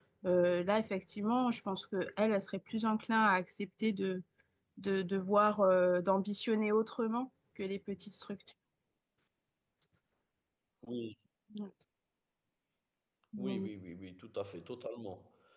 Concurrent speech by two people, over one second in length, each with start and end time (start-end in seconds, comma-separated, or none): none